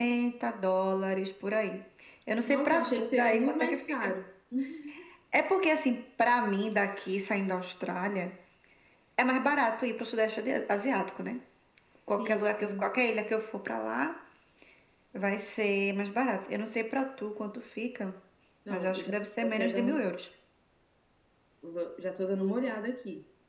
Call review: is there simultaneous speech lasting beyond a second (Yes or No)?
Yes